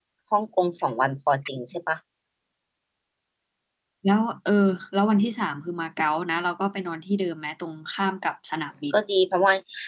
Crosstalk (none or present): none